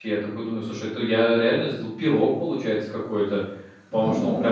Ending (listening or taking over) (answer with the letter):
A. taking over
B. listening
B